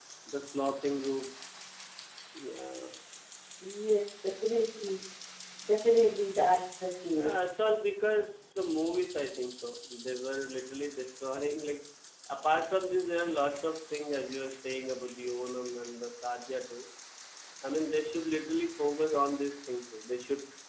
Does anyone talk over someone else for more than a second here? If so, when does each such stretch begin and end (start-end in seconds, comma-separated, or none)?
none